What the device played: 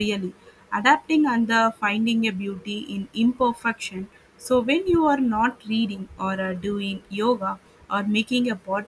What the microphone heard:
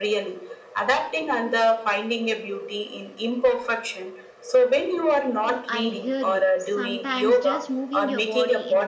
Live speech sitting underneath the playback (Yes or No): Yes